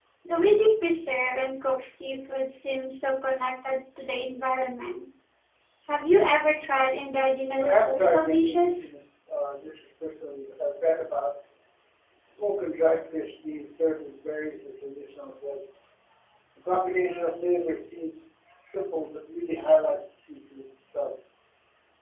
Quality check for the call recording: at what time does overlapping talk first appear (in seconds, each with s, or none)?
7.6 s